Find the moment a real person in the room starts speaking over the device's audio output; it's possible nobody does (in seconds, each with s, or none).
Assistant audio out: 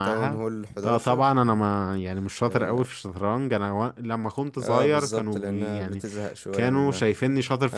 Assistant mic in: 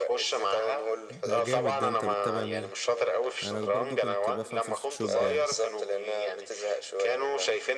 1.1 s